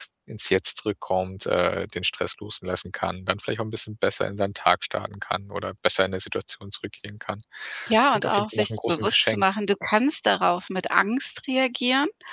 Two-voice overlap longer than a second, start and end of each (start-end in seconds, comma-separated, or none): 8.0-9.5